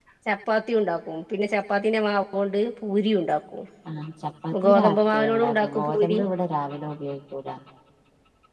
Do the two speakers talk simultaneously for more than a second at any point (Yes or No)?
Yes